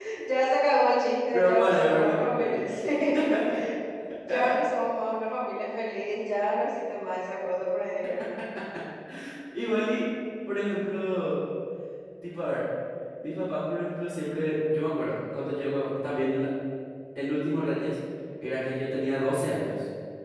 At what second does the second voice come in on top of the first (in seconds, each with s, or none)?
1.3 s